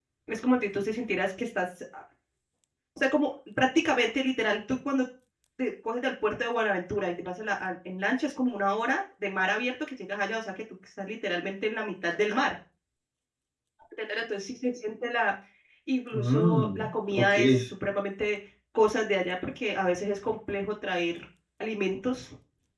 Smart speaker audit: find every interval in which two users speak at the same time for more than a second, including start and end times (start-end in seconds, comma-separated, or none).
16.1-17.7